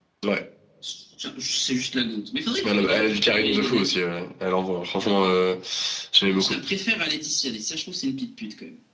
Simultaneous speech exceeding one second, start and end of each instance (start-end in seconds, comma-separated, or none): 2.6-3.9